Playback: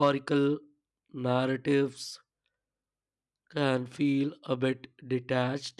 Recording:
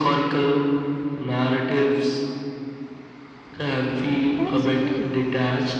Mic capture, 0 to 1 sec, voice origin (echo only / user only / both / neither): echo only